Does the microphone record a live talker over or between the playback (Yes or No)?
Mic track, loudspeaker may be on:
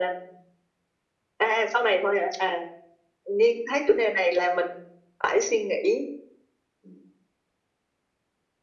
No